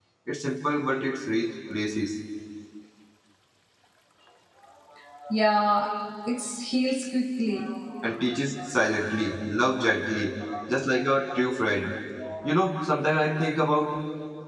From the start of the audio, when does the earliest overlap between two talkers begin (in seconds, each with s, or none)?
none